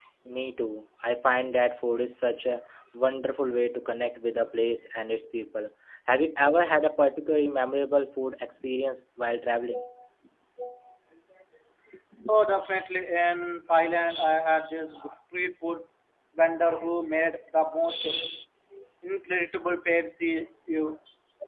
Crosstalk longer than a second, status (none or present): none